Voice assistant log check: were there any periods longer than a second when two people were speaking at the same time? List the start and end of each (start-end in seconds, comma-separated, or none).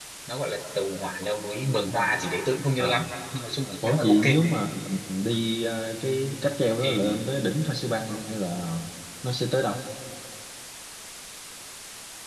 none